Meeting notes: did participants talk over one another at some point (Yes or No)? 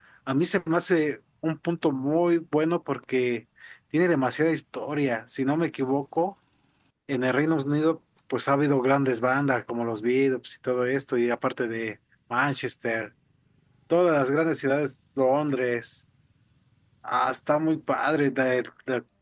No